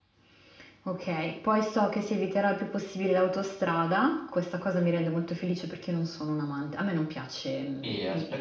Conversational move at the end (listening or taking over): taking over